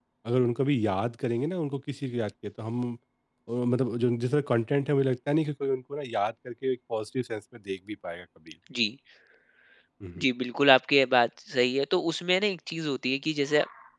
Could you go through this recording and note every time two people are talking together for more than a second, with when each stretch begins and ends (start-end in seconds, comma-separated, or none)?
none